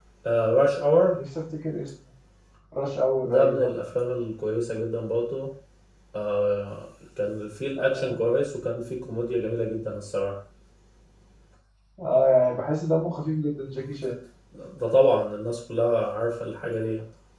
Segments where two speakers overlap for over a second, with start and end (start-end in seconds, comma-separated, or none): none